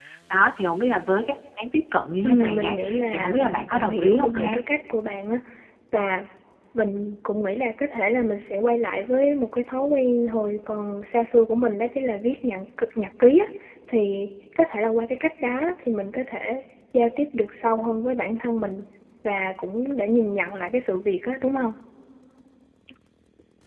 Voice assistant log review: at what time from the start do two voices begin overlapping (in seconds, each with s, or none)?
2.2 s